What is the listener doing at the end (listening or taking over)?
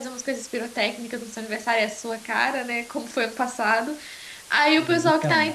listening